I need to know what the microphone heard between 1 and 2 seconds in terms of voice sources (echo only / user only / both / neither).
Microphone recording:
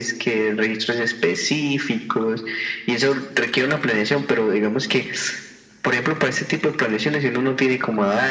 echo only